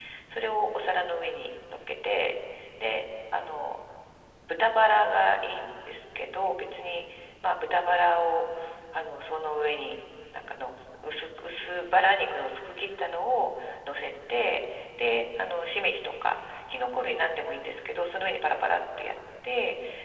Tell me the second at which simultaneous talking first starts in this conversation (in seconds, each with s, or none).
none